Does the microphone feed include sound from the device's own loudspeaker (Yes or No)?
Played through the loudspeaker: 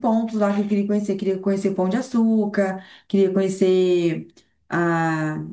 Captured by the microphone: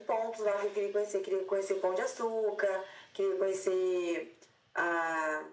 Yes